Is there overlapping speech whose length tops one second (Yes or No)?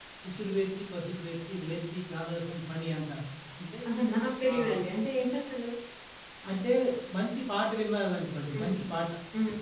No